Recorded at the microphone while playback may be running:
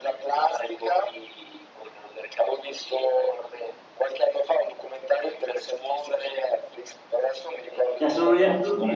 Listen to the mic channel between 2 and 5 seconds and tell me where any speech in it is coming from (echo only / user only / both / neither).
echo only